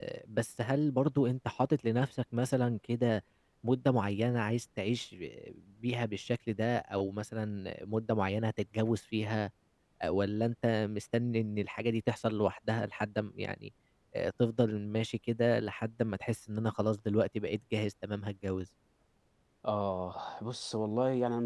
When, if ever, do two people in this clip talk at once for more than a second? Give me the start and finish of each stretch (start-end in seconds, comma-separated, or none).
none